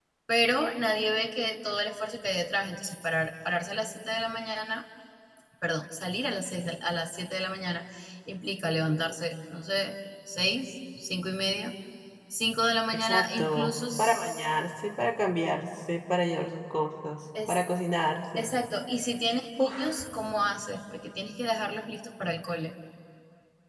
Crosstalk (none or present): present